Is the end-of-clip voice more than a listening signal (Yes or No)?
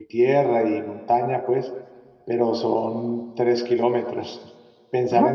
Yes